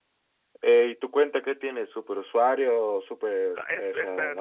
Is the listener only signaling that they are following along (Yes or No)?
No